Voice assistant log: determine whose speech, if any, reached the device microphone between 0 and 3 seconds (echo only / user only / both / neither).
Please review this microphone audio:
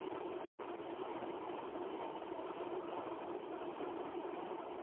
neither